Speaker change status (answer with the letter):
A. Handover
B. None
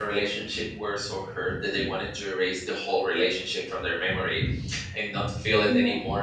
B